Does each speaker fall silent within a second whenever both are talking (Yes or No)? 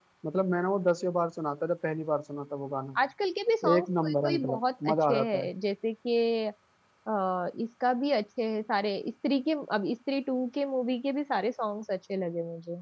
No